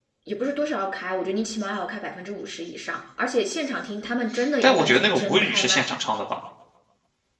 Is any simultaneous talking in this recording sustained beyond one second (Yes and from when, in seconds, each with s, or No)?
Yes, from 4.6 s